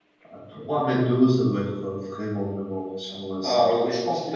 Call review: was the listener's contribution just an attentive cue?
No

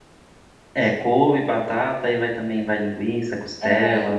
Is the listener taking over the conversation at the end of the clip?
Yes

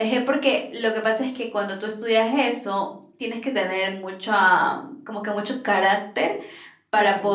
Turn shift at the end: No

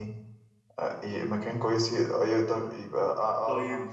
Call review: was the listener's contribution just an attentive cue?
No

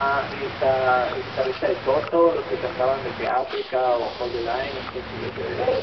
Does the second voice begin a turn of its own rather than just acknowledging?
Yes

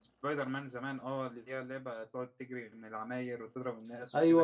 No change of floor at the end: No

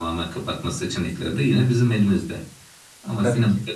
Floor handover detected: No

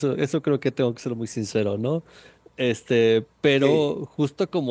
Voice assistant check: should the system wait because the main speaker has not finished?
Yes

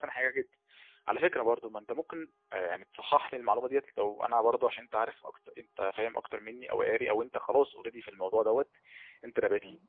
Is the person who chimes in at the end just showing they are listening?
Yes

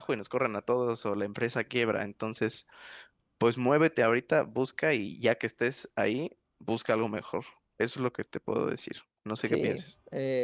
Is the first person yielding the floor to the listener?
Yes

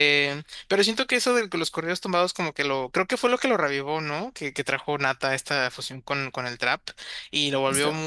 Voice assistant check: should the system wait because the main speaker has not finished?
Yes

